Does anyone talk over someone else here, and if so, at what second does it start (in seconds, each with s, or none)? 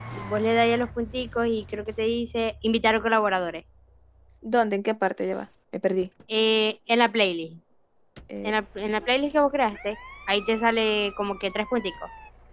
none